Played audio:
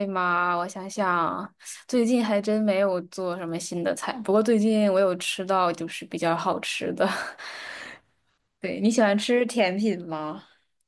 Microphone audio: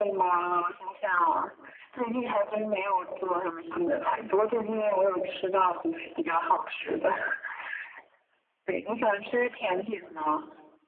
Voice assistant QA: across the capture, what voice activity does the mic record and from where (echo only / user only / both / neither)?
both